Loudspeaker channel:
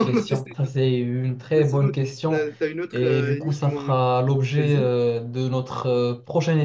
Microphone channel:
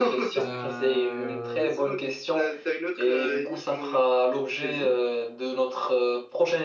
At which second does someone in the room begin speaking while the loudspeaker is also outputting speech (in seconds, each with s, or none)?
0.4 s